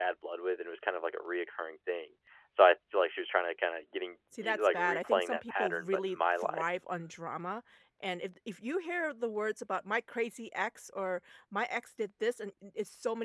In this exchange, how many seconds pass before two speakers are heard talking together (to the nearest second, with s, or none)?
4 s